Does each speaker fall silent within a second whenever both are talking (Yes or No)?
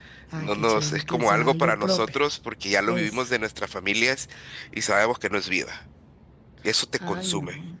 No